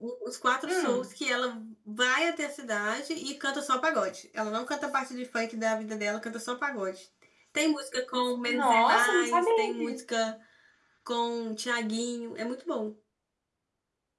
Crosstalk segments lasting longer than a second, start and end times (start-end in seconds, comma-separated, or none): 8.4-10.0